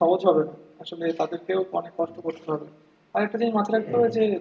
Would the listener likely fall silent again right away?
Yes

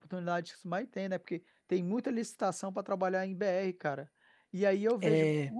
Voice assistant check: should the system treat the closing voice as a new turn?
No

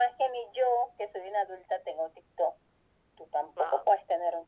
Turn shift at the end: No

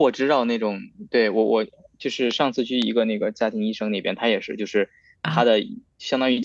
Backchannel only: Yes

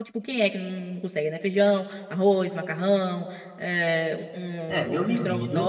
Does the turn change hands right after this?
Yes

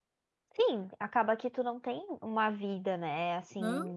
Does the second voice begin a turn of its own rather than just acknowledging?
No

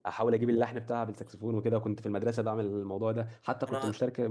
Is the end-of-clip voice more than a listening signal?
No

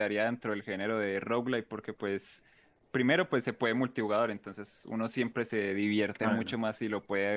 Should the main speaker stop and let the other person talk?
No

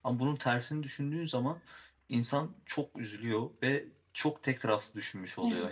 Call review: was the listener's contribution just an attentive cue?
Yes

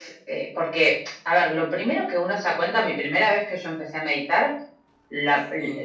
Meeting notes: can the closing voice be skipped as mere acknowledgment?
Yes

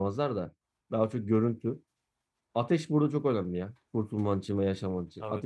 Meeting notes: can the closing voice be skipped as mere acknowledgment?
No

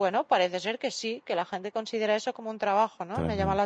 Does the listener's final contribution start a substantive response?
Yes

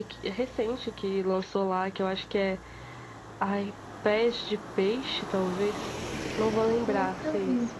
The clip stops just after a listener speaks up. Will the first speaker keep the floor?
Yes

